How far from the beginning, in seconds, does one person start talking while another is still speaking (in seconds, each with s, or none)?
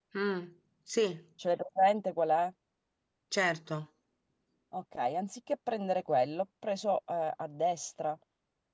none